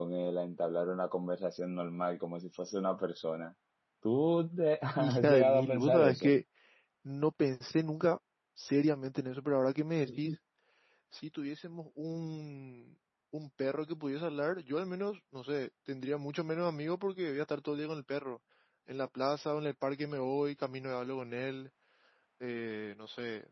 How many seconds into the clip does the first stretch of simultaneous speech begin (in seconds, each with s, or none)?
5.0 s